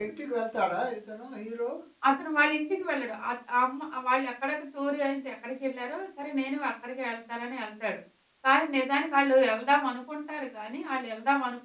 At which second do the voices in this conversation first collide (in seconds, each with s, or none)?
none